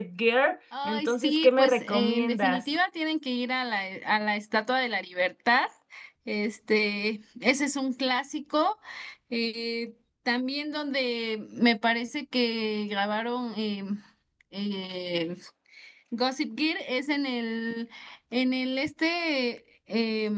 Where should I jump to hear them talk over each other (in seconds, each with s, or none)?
0.8 s